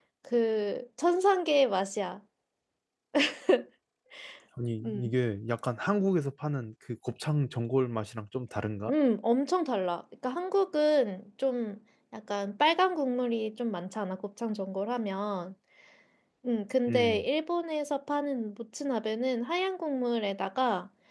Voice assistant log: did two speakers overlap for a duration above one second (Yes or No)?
No